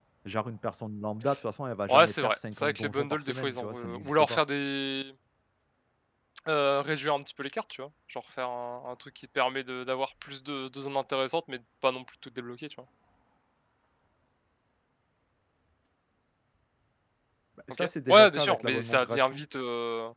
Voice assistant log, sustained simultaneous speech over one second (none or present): present